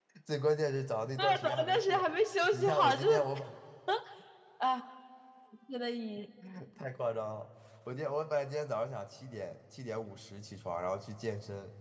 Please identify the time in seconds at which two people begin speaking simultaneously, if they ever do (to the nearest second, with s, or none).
1 s